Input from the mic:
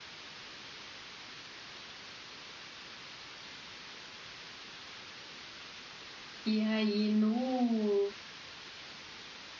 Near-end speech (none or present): present